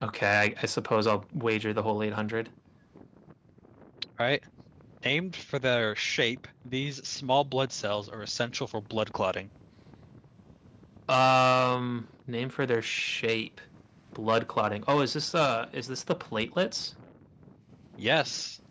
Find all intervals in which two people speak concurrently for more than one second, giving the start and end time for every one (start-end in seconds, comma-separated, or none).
none